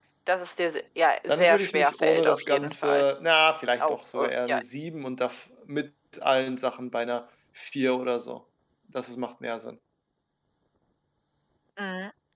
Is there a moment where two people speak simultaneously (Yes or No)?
Yes